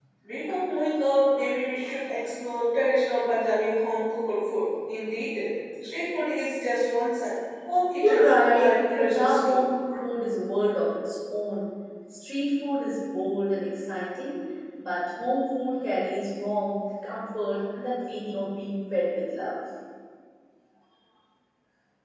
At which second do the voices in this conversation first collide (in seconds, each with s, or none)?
8.0 s